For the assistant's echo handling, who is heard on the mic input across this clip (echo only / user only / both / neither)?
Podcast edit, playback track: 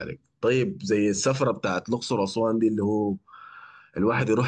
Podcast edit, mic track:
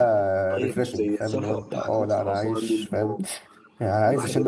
both